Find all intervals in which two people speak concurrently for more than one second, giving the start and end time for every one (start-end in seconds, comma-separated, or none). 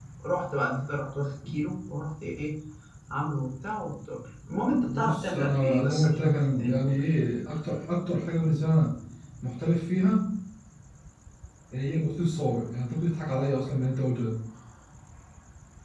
4.8-6.9